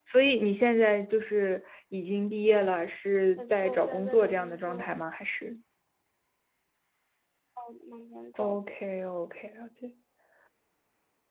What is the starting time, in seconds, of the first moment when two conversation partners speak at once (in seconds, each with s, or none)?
3.4 s